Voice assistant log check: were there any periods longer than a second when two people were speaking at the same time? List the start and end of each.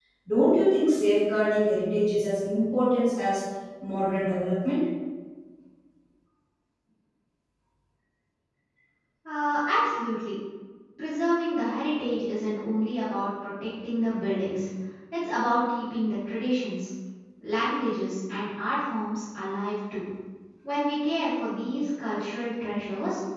none

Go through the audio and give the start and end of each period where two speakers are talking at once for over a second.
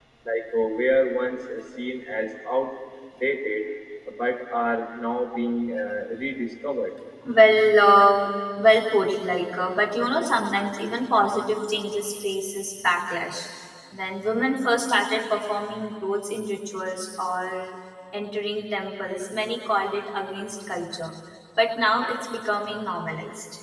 none

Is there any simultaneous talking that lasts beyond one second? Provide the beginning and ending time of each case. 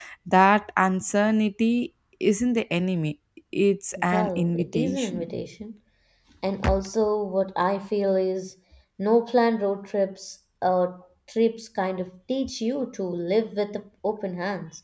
4.0-5.3

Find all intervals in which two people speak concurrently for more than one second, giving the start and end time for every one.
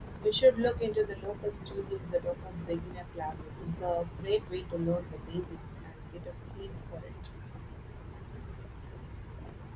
none

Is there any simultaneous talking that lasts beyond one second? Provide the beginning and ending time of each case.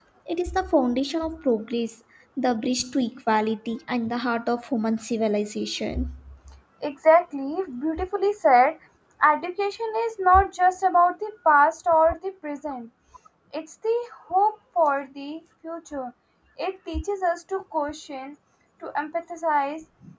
none

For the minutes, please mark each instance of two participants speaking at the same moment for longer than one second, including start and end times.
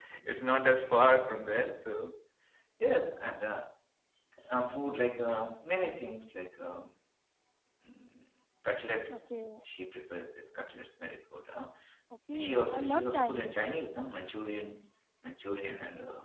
12.3-13.6

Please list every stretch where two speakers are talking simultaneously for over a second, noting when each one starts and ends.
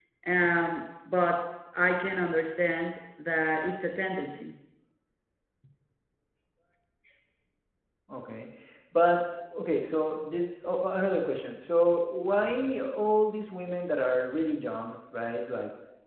none

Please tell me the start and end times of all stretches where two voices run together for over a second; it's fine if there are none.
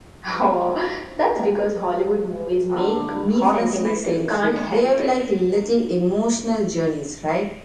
2.7-5.1

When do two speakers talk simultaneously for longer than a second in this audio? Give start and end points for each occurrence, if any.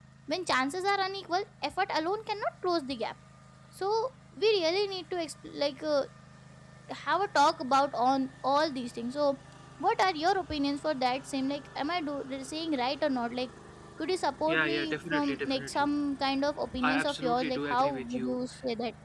14.5-15.9, 16.8-18.4

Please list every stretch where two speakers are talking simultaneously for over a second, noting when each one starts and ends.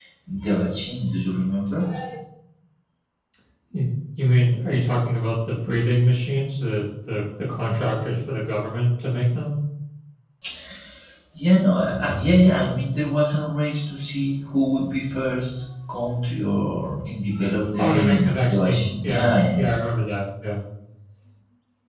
17.8-19.6

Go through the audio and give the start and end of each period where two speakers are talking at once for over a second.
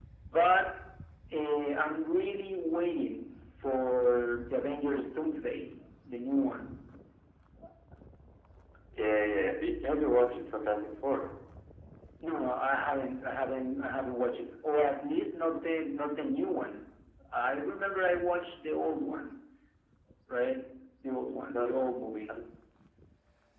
none

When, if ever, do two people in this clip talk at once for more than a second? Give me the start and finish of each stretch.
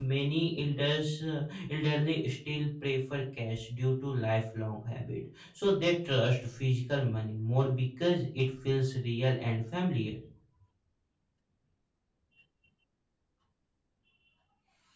none

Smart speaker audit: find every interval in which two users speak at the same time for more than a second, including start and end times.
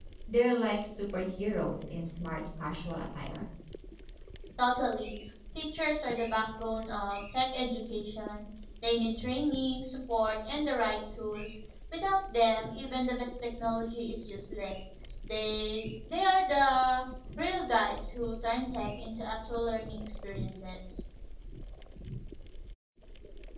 none

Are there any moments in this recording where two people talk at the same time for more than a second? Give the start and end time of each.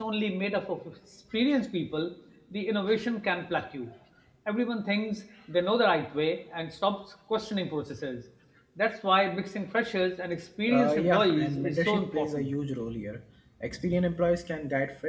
10.7-12.5

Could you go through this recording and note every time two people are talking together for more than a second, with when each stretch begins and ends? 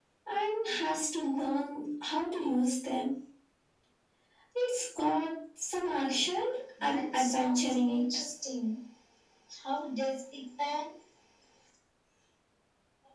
6.8-8.0

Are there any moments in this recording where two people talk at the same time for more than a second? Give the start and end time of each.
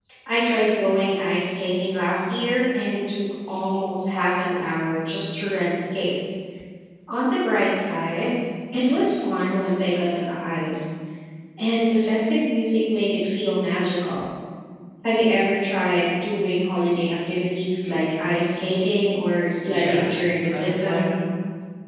19.7-21.2

